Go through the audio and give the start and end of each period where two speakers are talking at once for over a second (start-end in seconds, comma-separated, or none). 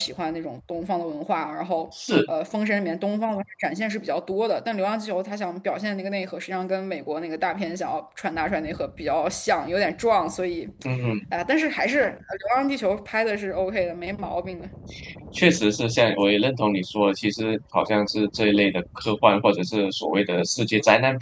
none